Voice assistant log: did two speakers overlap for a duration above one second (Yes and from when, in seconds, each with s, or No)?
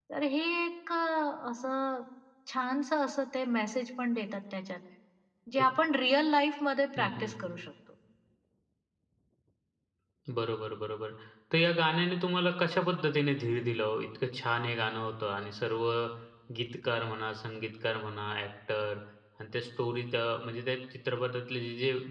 No